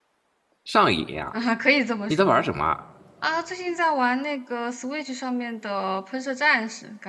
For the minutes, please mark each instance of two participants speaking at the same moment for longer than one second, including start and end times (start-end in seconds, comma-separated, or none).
none